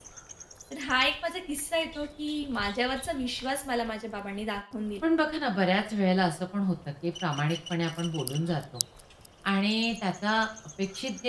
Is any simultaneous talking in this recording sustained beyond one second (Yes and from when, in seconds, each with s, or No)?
No